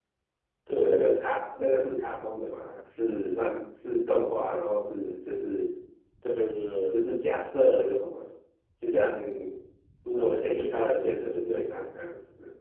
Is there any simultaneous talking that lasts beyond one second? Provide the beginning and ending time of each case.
10.1-11.8

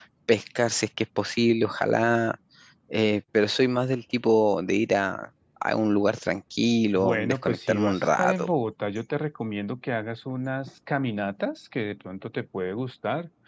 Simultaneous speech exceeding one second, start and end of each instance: 7.0-8.5

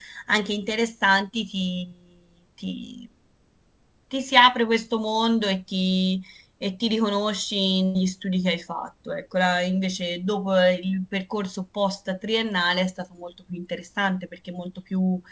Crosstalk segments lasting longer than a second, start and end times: none

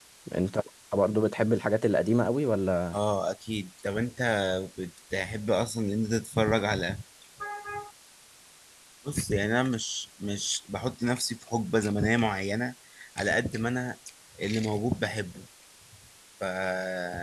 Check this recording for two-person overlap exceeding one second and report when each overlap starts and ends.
none

